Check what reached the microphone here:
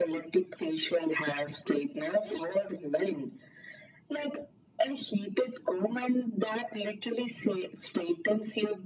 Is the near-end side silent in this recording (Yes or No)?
Yes